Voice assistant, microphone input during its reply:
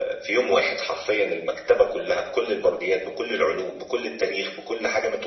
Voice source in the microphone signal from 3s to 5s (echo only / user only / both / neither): echo only